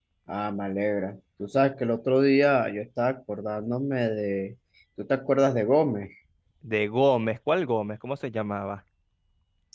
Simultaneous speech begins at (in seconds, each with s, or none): none